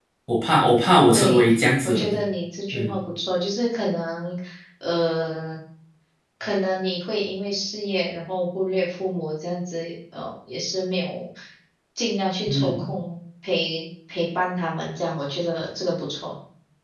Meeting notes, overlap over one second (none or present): none